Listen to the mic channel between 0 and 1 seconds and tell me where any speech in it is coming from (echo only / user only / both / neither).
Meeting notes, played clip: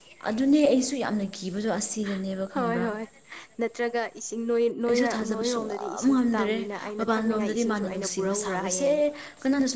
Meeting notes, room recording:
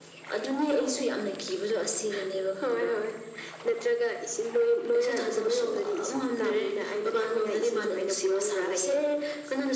echo only